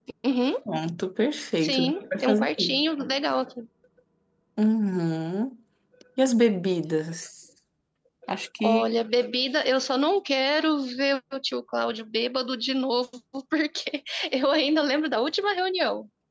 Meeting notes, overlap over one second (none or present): present